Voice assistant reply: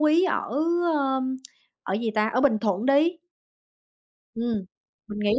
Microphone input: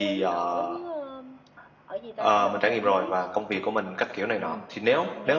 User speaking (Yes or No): Yes